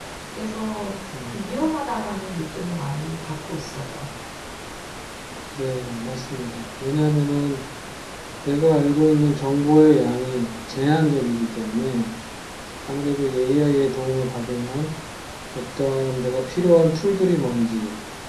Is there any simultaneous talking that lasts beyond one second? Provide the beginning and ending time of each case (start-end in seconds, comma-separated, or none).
none